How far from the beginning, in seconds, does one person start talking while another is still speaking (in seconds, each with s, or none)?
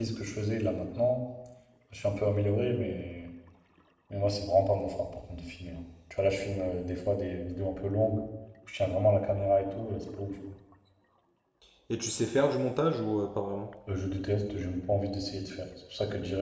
none